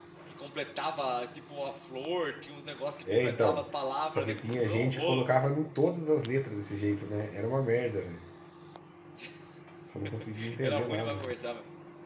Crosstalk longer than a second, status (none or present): present